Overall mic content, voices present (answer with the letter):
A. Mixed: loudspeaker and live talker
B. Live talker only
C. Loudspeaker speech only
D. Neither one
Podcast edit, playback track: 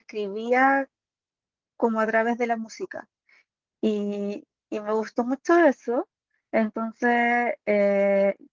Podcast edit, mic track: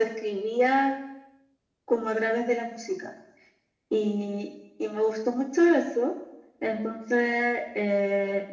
C